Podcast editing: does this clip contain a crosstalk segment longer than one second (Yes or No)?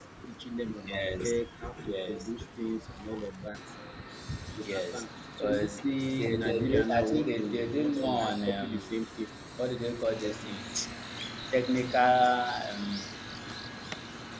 Yes